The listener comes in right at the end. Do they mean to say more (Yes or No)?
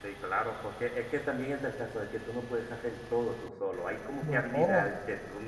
No